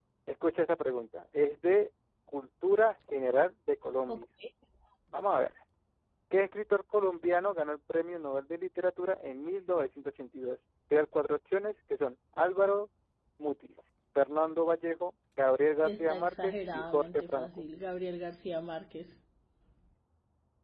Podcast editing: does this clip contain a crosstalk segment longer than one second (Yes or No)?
Yes